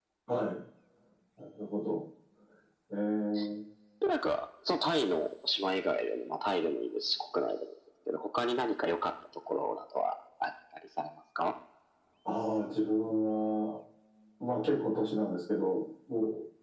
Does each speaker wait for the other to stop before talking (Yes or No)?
Yes